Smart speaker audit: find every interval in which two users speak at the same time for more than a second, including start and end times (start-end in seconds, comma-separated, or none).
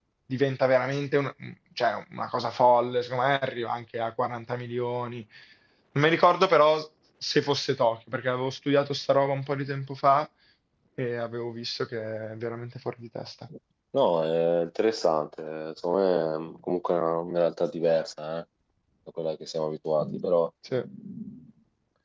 none